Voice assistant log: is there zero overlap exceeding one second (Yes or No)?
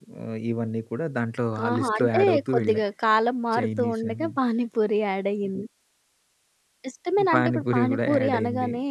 No